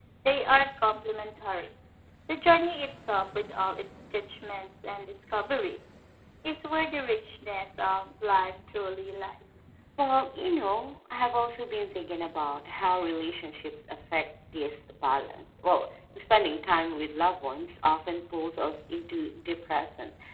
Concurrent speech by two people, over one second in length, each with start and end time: none

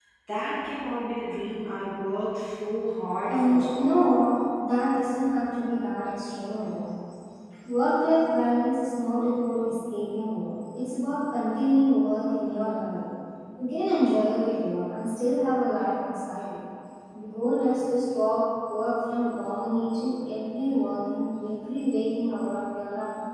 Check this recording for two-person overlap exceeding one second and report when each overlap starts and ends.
none

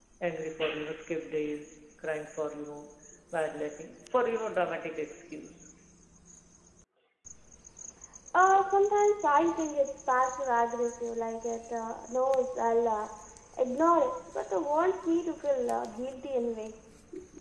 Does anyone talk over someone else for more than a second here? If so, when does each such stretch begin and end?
none

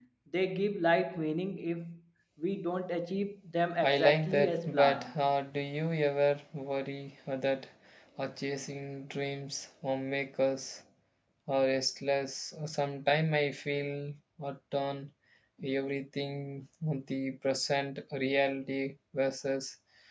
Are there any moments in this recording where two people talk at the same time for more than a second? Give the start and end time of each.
3.8-5.1

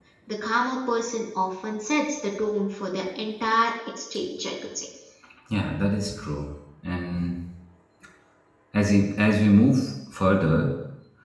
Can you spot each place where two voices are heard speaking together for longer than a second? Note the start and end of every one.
none

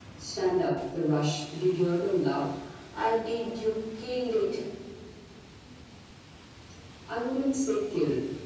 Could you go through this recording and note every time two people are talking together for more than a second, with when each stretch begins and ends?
none

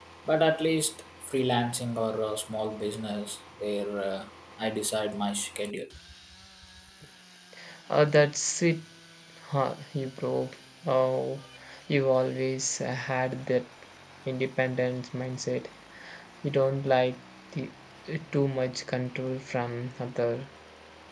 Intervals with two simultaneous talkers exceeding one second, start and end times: none

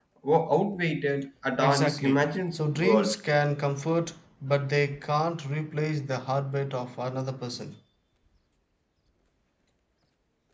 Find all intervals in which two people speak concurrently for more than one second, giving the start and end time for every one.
1.6-3.2

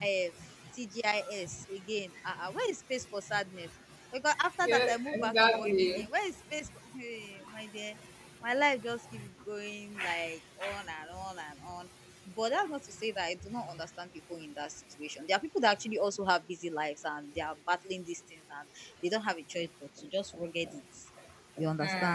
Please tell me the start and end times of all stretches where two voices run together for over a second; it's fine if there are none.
4.6-6.0

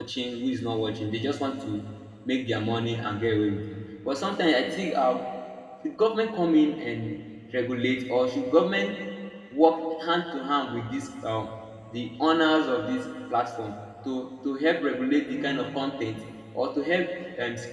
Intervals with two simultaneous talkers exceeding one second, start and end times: none

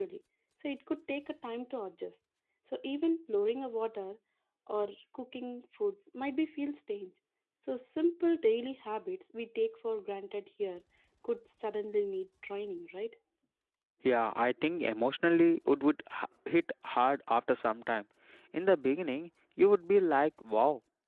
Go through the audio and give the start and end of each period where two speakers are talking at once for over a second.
none

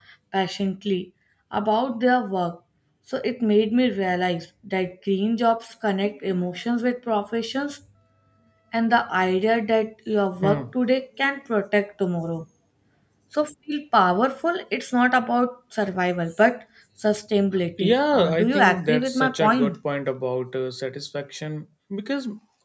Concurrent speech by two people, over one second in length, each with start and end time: 17.8-19.8

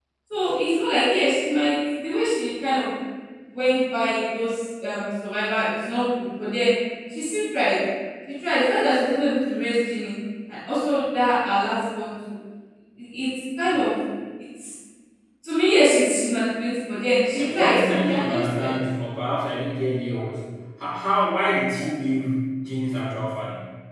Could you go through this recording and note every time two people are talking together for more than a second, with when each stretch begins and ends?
17.3-18.7

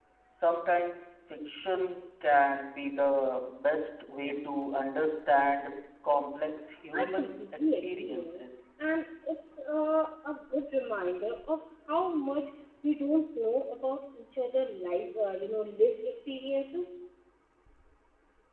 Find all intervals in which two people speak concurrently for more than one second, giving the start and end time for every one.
6.9-8.5

